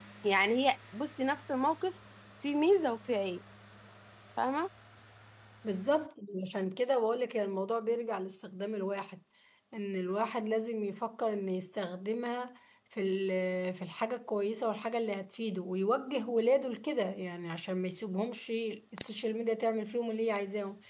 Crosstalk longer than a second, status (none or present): none